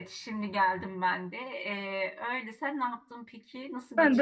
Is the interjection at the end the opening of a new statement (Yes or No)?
Yes